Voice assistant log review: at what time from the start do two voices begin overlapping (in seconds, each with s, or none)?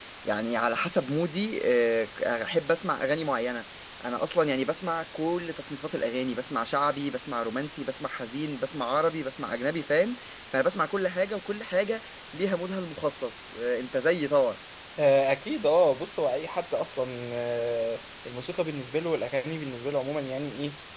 none